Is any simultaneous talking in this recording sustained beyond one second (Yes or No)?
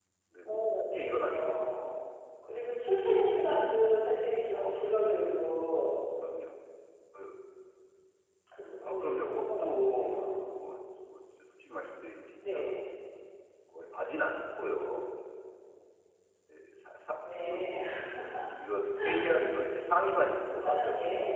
Yes